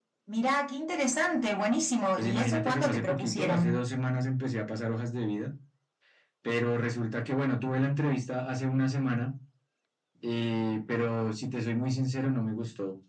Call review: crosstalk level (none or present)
present